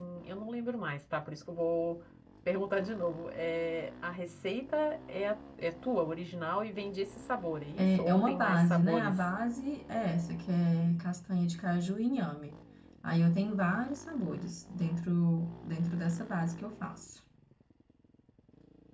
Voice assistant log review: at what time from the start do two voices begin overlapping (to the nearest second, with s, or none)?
8 s